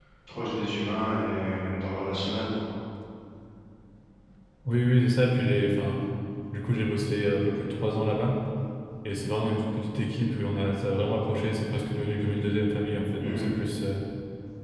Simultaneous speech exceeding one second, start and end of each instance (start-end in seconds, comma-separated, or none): none